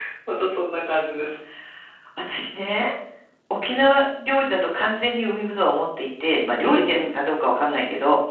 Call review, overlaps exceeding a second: none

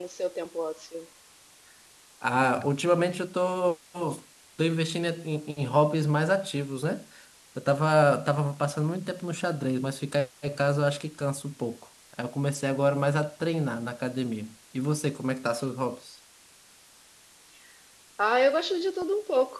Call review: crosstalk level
none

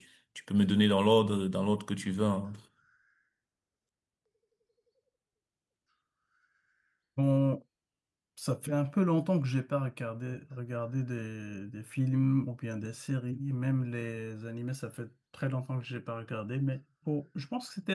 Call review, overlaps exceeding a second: none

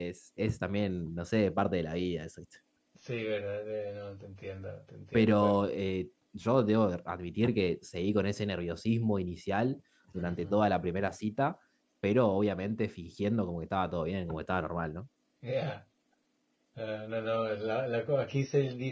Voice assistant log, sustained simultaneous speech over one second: none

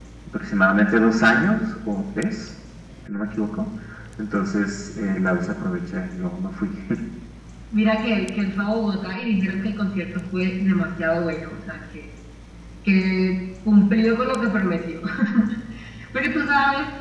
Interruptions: none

